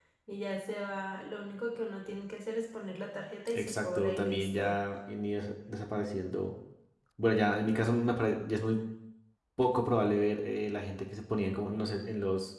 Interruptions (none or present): present